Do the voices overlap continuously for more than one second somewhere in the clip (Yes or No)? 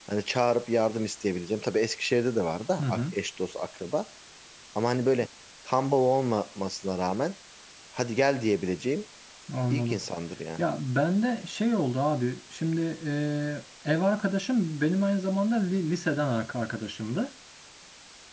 No